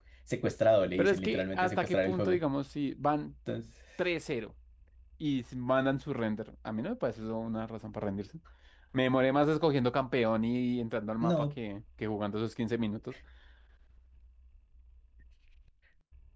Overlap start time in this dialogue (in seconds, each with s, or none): 1.0 s